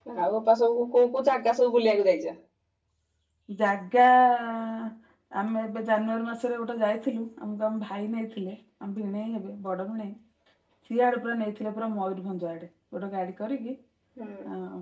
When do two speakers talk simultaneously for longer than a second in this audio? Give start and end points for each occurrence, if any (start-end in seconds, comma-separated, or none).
none